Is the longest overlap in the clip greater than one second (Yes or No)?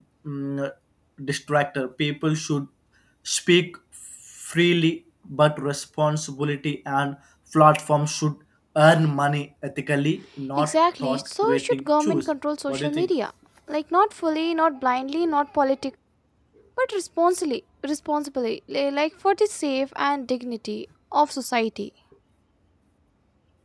Yes